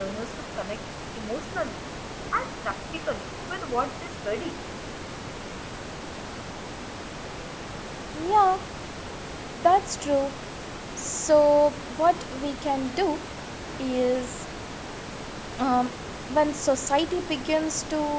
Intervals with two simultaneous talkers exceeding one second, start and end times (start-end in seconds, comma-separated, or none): none